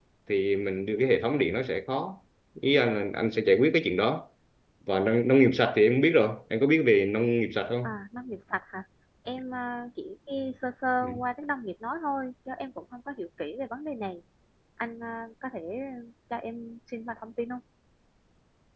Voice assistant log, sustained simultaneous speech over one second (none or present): none